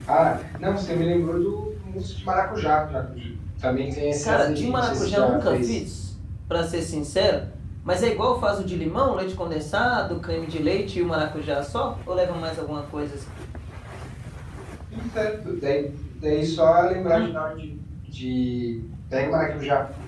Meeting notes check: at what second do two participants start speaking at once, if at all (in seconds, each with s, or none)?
4.2 s